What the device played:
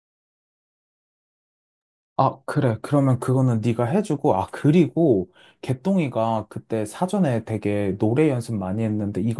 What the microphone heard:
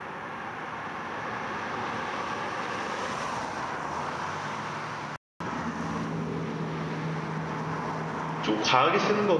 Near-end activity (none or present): present